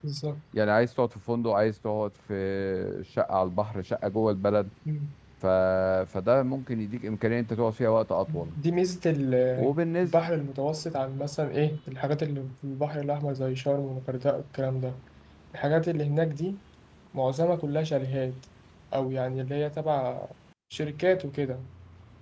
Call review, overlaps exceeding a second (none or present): none